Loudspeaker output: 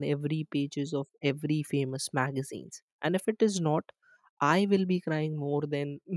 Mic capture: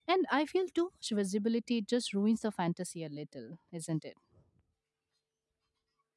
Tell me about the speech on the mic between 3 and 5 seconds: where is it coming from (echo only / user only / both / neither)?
user only